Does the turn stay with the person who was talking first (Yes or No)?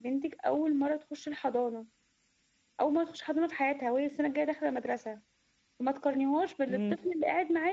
Yes